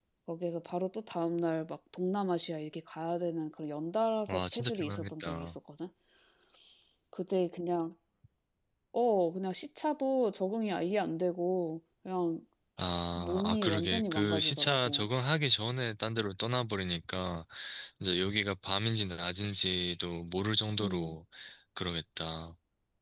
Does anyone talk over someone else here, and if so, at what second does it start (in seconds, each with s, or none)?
4.3 s